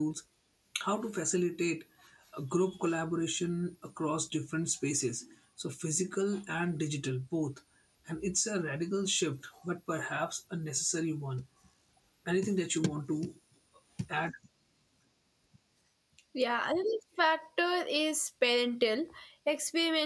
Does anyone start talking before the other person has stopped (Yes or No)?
No